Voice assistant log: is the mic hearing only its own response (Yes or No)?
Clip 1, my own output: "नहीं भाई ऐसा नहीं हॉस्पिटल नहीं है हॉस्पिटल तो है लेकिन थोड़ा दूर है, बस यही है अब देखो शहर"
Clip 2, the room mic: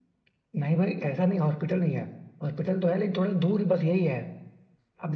Yes